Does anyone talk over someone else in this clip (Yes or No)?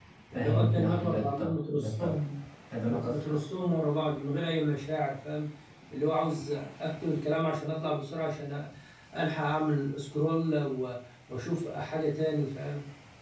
Yes